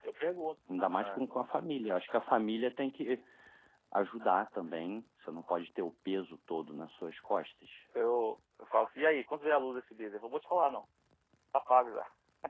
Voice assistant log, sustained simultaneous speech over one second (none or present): none